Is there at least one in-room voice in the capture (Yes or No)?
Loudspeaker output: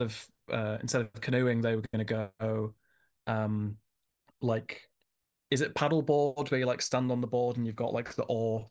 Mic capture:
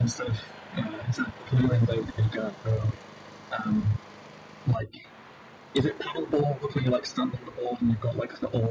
No